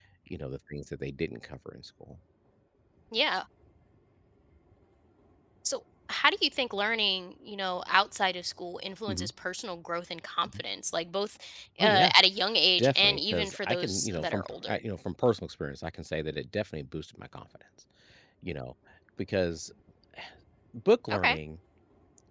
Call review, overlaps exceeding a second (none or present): present